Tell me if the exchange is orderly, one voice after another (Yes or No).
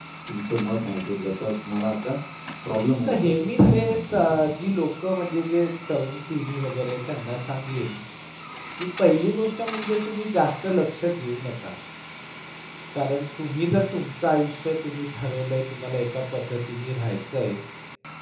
No